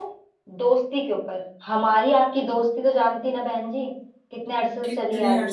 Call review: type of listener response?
taking over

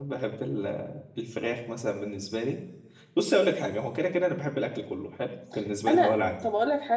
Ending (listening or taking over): taking over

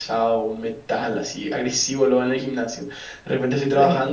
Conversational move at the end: listening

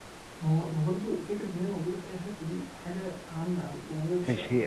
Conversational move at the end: taking over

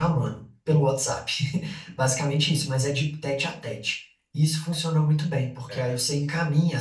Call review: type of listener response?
listening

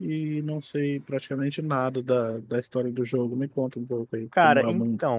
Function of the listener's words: taking over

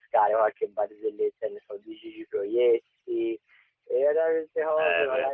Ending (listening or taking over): listening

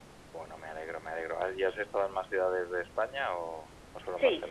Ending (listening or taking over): taking over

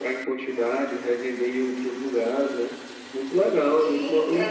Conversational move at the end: taking over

